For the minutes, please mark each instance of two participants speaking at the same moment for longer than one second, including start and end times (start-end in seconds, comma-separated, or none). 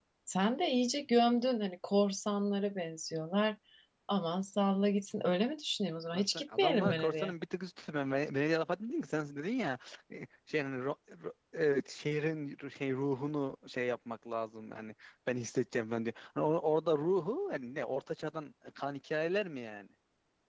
6.1-7.3